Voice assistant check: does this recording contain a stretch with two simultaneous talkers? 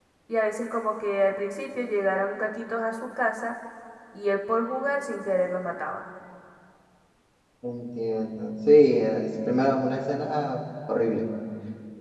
No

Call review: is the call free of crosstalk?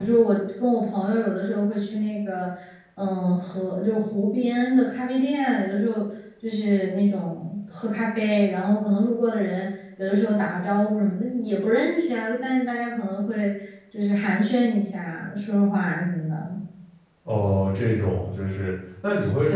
Yes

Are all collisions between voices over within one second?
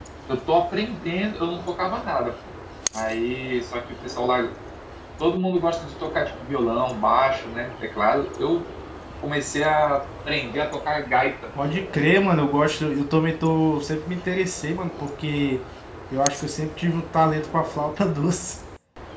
Yes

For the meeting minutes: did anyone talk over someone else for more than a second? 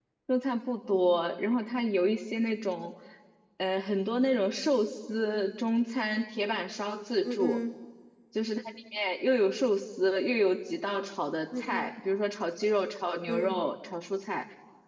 No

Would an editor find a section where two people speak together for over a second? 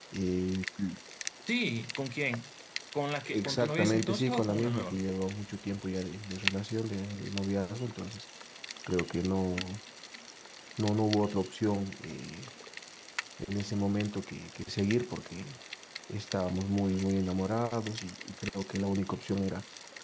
Yes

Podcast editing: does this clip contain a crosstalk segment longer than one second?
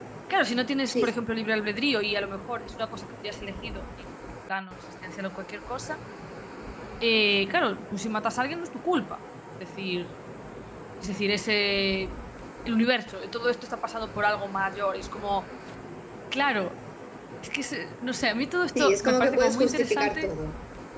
Yes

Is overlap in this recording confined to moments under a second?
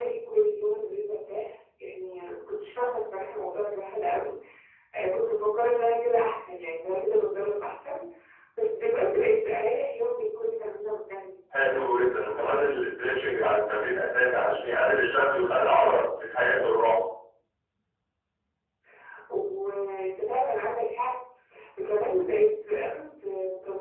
Yes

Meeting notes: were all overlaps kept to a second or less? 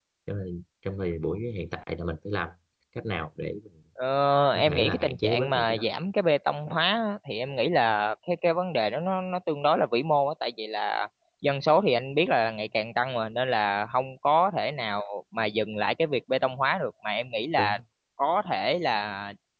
No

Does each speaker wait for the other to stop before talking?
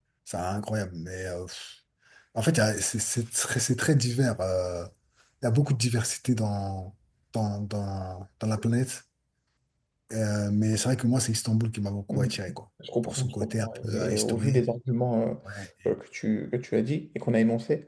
No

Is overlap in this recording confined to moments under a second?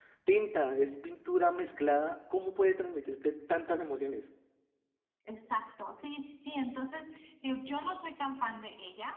Yes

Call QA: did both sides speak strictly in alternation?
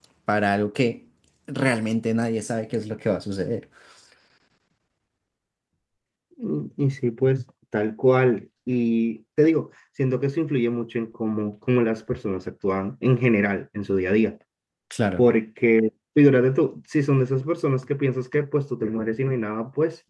Yes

